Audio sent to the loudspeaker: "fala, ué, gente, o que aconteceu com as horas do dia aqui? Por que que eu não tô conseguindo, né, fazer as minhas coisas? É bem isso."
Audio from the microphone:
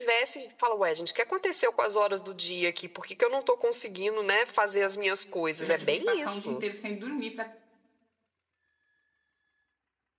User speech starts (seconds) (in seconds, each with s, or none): 5.6 s